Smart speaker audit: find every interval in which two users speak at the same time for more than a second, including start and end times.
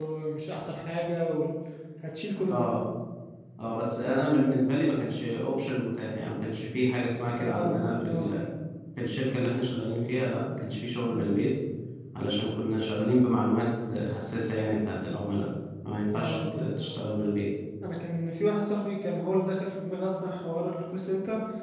none

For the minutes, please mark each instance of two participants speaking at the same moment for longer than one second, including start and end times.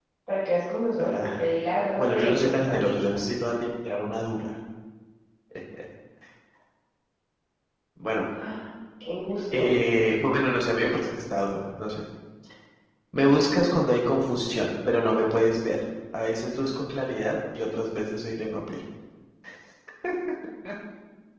2.0-3.2

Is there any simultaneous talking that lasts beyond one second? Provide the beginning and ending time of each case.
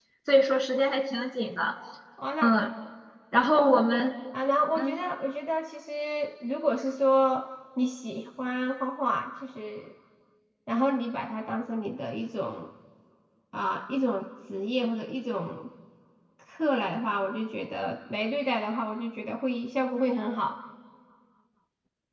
none

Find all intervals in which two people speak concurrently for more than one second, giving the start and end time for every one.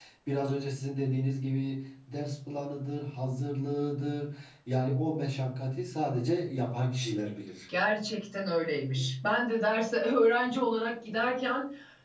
none

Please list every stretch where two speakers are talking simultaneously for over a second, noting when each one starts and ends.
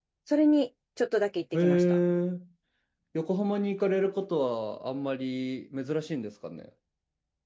none

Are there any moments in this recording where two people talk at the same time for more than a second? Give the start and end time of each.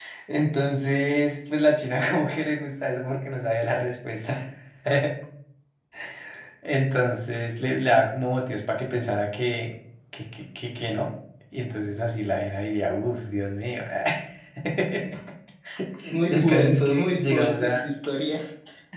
16.3-17.8

